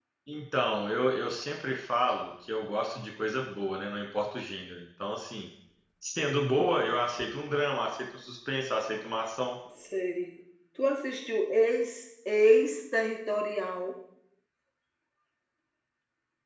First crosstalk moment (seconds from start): none

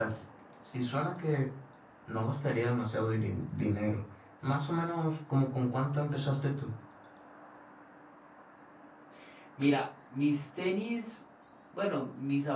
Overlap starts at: none

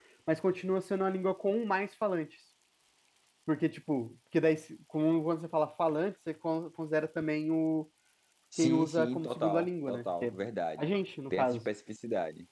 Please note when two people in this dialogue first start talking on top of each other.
8.6 s

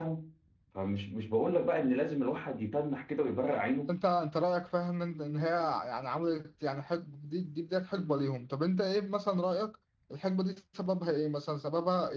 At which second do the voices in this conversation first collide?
none

